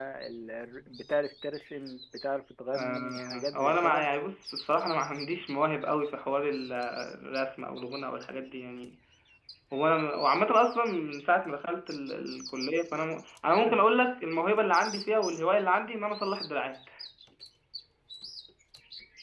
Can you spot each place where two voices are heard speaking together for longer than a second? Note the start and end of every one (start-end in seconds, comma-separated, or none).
2.8-4.1